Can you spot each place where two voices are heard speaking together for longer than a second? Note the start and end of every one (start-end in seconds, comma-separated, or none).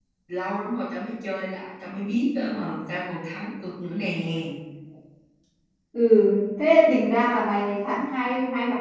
none